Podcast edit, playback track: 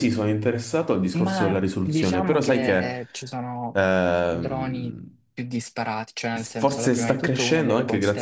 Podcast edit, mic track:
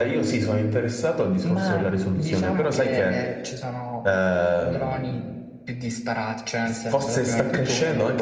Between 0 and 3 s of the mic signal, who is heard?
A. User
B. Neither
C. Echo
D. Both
C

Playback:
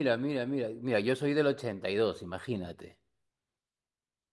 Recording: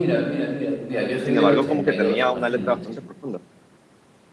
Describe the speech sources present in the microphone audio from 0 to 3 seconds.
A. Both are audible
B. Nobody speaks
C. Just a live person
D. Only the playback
A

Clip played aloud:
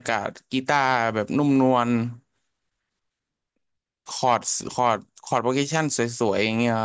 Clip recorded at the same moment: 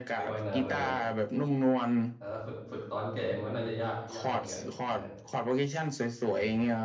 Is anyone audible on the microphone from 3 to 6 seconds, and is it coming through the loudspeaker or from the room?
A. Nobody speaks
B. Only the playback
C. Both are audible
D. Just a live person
C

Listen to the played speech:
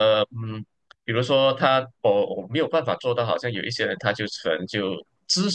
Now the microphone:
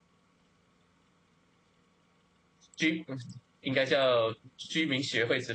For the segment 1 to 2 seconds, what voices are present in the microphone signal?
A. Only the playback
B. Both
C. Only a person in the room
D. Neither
D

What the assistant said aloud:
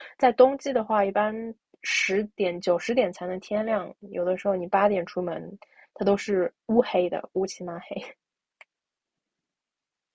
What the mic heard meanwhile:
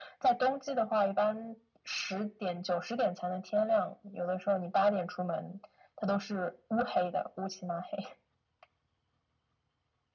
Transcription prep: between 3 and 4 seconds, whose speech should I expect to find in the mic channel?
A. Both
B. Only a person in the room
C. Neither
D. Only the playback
D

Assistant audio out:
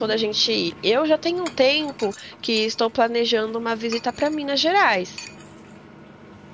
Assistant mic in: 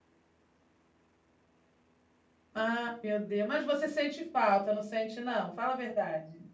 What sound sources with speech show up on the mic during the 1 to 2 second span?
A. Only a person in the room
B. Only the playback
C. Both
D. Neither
D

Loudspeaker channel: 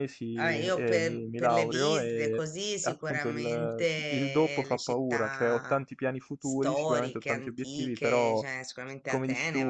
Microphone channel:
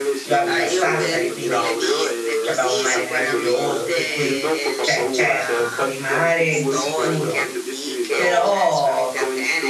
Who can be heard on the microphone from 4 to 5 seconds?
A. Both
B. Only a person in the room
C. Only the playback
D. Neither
A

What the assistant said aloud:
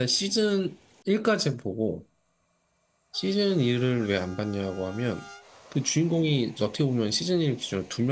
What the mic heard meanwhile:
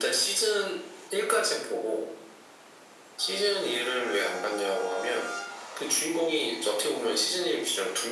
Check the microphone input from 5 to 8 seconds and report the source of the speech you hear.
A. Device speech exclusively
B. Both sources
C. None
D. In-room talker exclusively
A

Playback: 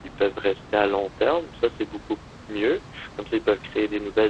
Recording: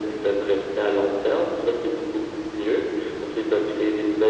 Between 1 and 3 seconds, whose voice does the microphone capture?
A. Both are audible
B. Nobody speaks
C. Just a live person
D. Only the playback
D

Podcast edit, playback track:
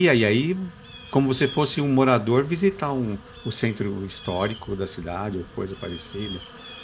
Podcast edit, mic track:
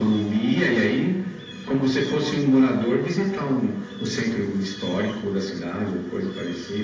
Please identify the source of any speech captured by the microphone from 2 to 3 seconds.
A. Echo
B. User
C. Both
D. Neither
A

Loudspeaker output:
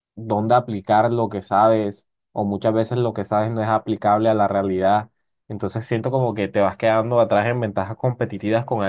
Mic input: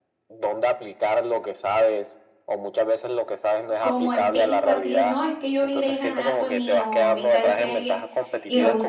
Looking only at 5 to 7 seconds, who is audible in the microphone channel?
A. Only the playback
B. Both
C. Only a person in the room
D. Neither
B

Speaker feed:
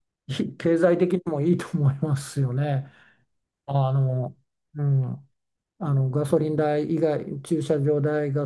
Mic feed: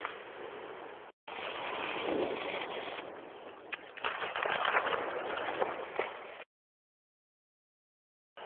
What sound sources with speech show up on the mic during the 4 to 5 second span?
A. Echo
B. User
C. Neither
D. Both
C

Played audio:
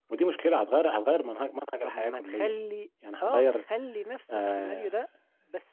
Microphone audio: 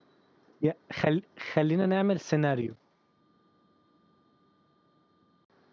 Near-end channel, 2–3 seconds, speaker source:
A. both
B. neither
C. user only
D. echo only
C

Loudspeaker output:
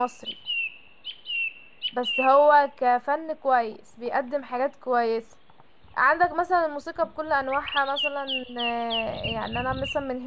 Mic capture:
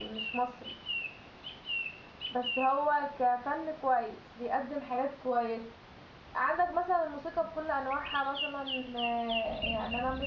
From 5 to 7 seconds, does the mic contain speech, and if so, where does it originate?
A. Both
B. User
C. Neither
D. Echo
D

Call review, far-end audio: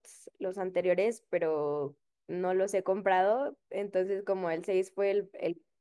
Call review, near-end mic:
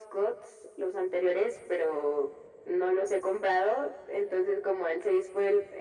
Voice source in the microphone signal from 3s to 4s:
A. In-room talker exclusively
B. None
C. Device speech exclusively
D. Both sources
C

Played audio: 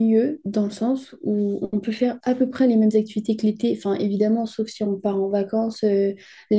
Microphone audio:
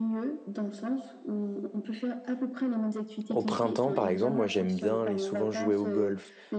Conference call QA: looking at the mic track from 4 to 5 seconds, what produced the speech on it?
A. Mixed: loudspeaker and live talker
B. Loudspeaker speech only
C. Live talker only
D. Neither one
A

